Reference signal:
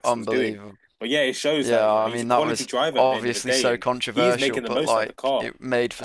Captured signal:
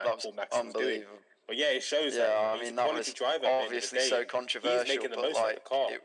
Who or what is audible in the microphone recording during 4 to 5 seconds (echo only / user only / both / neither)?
echo only